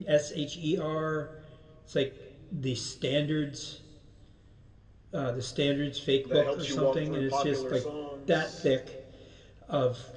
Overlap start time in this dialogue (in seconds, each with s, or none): 6.3 s